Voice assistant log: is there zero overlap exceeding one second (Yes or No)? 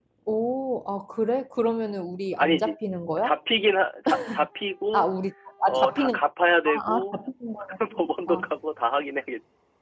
Yes